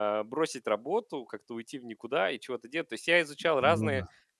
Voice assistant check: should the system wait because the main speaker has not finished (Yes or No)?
Yes